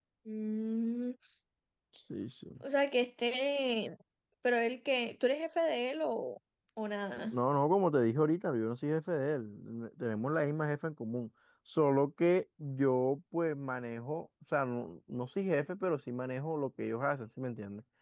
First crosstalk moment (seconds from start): none

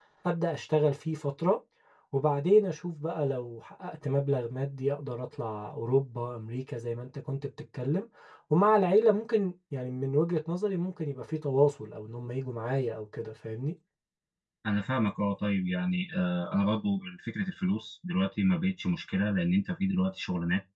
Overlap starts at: none

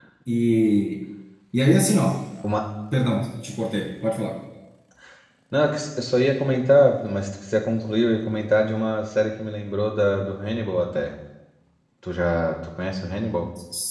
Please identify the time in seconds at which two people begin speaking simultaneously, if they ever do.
none

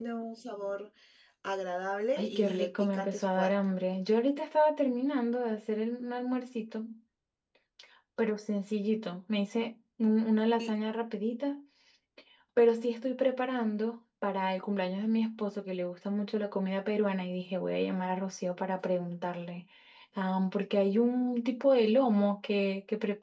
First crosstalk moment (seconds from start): 2.2 s

